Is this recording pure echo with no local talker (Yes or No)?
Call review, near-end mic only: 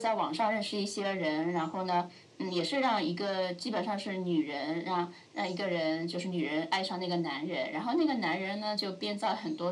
Yes